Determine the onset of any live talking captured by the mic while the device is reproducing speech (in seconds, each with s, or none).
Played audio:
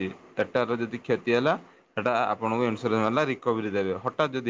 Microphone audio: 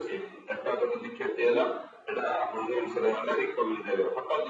none